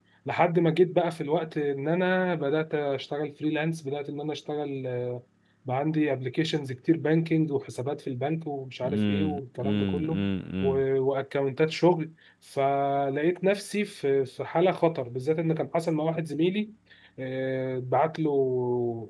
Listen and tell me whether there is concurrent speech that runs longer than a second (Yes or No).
Yes